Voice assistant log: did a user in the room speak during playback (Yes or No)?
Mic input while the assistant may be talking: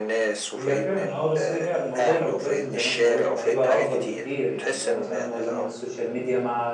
Yes